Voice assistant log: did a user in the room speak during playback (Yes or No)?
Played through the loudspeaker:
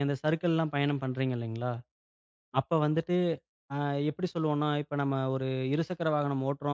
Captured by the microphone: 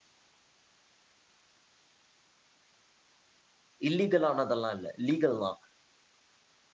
Yes